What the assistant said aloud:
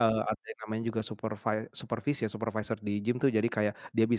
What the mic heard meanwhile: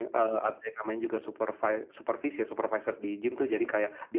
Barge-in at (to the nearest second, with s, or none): none